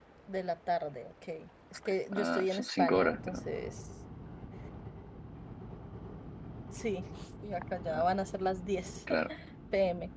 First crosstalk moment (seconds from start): 2.1 s

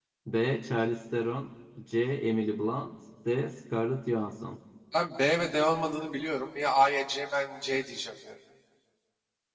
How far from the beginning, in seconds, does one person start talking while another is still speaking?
none

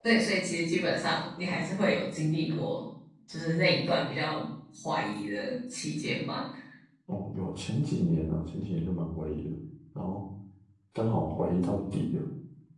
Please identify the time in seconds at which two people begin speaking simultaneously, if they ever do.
none

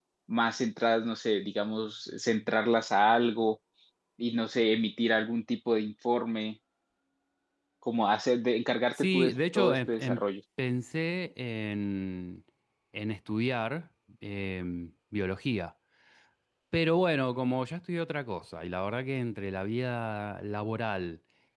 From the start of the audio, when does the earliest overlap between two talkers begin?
8.9 s

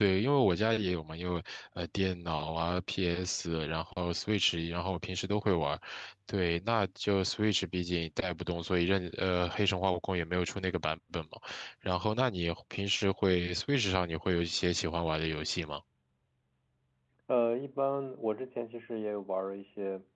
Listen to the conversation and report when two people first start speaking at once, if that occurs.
none

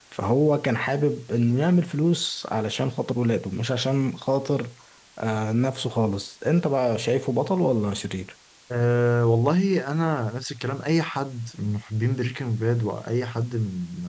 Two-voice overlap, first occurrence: none

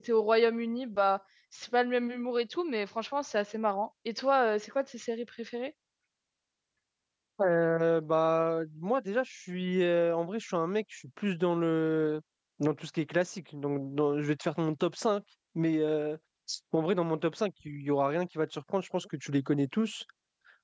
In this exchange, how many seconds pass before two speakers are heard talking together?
none

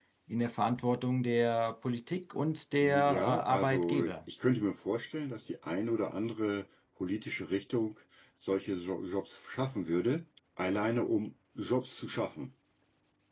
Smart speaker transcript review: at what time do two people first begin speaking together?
2.8 s

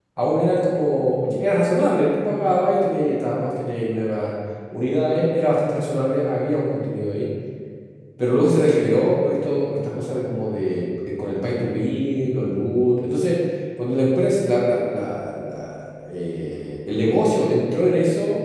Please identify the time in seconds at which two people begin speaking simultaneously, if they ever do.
none

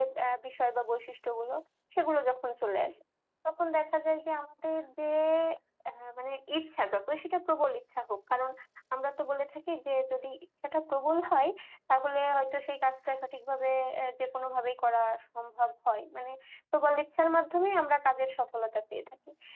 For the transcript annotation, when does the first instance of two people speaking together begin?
none

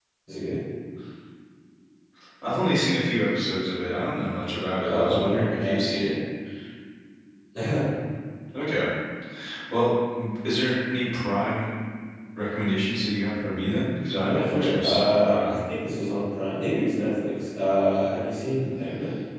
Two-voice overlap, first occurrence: 4.8 s

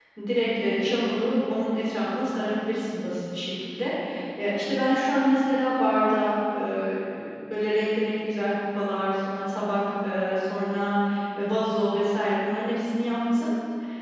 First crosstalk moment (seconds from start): none

